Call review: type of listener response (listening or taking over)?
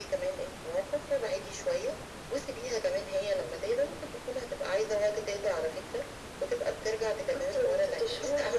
taking over